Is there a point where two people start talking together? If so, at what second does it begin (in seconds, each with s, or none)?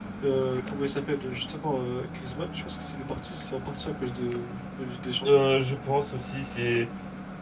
none